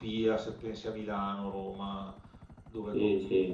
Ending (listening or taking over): taking over